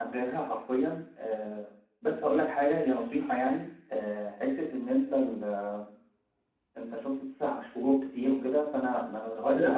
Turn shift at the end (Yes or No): Yes